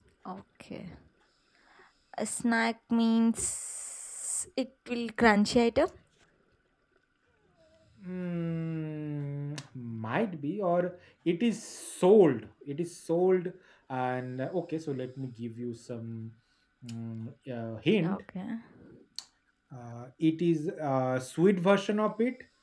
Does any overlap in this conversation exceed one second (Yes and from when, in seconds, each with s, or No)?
No